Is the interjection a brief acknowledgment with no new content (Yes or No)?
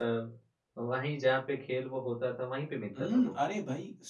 No